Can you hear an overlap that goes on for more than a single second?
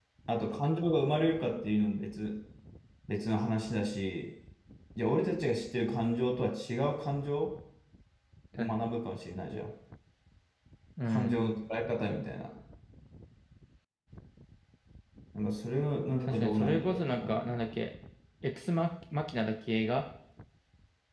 Yes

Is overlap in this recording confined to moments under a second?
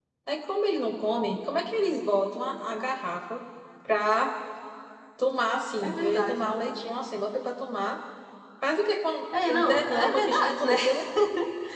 No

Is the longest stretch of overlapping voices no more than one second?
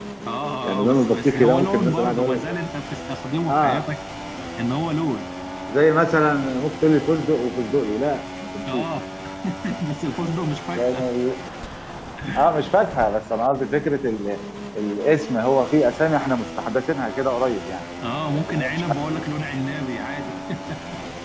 No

